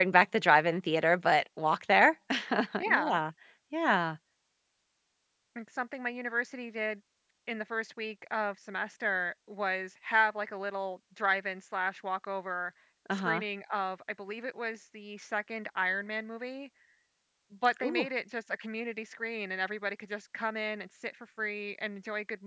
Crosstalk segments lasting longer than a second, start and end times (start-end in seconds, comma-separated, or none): none